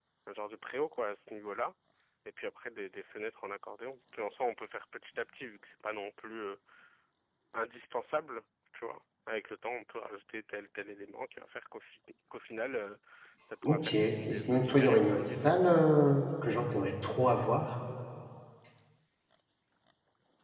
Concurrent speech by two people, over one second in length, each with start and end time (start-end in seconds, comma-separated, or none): 13.6-15.5